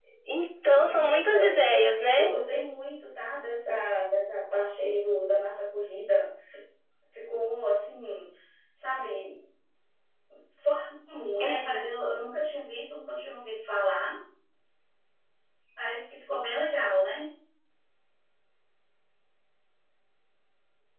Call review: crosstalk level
present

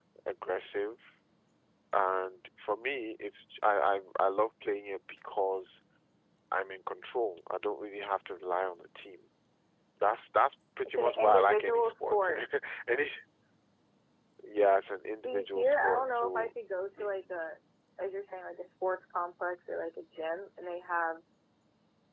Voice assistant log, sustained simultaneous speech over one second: present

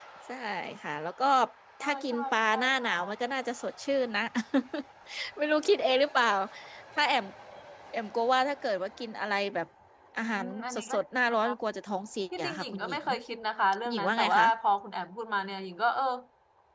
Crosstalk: present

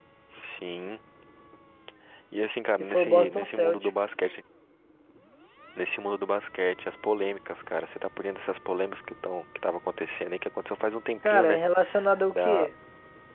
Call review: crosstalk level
present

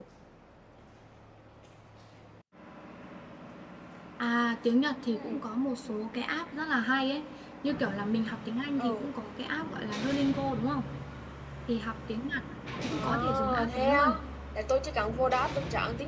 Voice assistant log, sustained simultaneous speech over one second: present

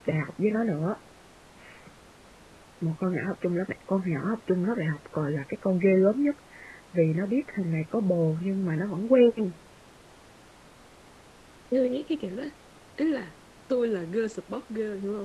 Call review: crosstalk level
none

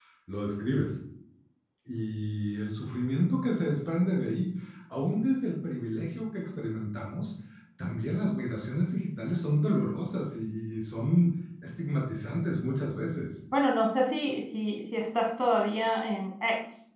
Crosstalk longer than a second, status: none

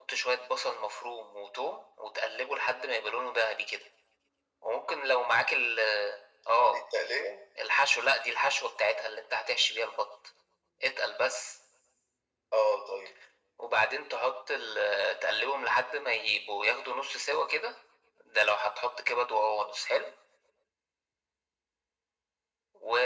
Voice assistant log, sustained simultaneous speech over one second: none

